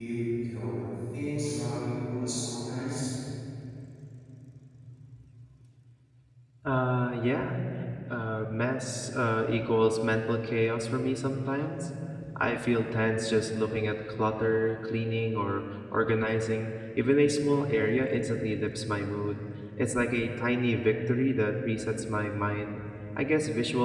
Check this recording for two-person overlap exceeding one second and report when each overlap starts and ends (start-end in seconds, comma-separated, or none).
none